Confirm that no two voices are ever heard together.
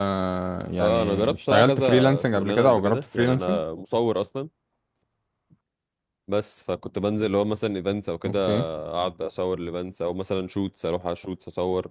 No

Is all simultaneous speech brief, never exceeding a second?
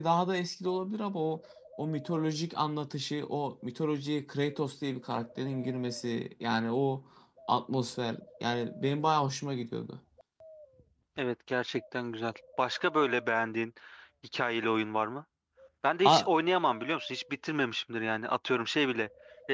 Yes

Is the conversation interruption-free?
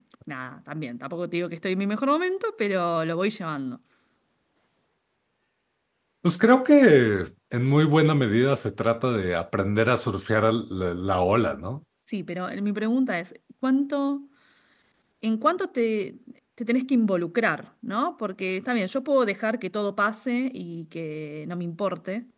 Yes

